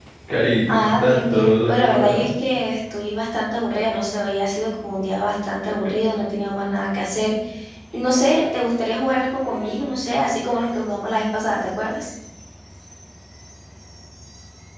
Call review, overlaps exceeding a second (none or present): present